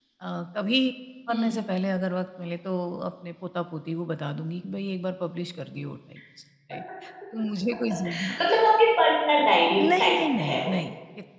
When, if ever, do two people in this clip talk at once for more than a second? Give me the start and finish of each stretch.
9.4-10.8

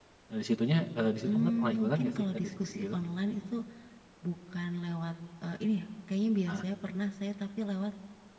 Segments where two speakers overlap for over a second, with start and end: 1.2-3.0

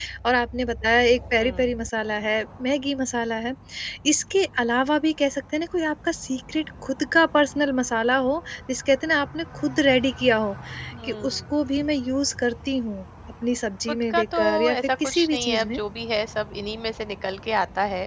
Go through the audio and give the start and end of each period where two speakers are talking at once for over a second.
13.9-15.8

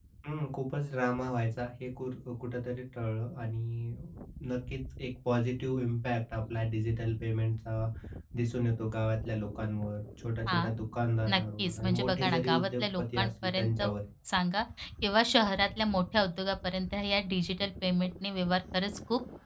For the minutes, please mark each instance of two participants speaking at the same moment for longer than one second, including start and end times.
11.3-13.8

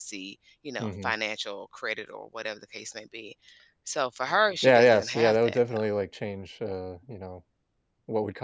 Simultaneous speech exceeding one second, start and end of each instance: 4.6-5.9

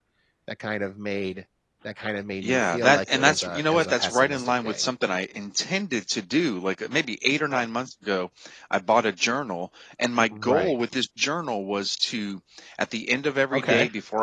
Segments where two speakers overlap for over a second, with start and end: 2.4-4.8

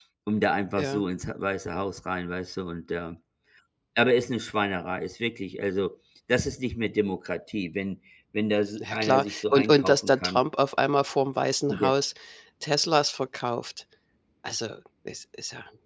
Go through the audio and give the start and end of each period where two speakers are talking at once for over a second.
8.8-10.4

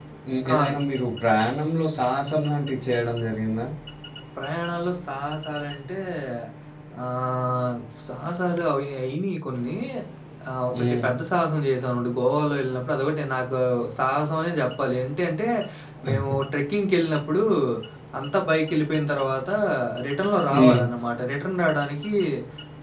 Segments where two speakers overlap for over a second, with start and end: none

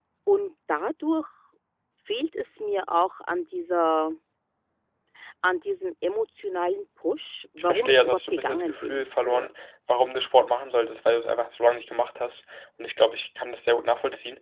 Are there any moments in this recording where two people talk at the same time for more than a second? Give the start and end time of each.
7.6-9.5

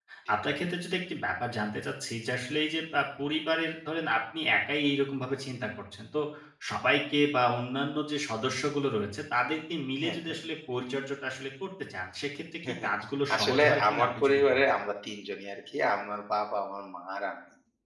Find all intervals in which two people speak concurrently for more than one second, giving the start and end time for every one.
13.3-14.6

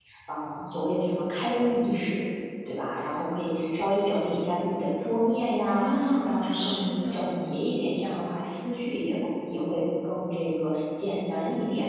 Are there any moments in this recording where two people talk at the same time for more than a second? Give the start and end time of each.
5.6-7.2

